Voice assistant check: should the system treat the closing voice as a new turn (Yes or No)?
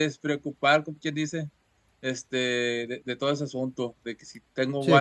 No